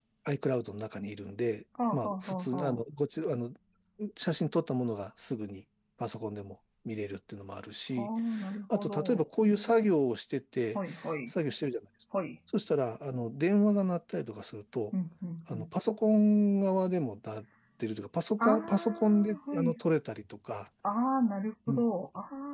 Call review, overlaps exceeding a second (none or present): present